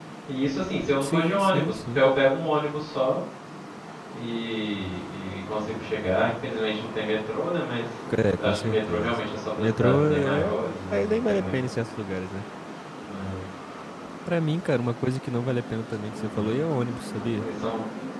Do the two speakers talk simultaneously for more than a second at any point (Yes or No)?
Yes